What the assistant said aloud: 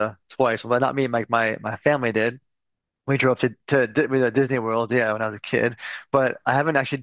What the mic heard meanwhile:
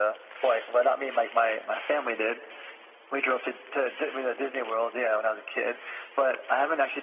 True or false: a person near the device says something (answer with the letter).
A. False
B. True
A